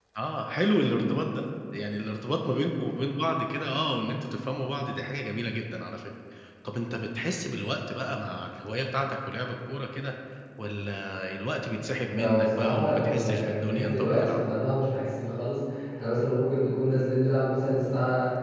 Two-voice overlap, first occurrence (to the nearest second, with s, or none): 12 s